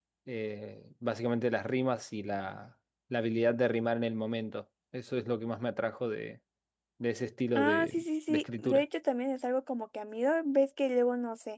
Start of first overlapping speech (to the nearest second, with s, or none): 8 s